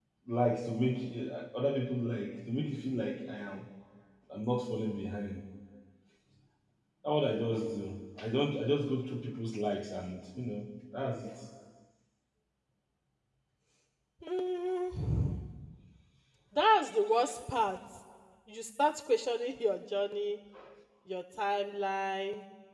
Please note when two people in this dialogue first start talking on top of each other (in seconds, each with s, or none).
none